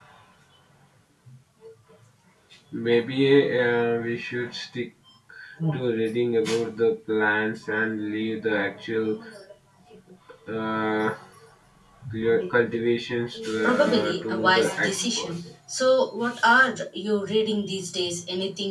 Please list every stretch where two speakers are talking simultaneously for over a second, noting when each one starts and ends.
13.6-15.4

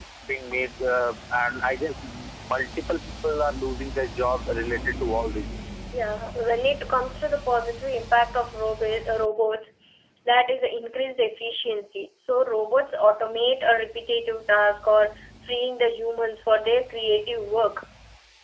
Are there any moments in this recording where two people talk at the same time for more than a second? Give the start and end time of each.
none

